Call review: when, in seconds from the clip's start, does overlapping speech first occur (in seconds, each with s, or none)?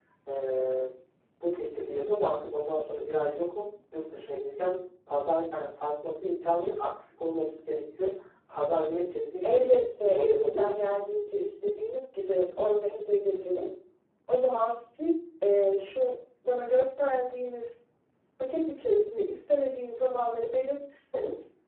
9.4 s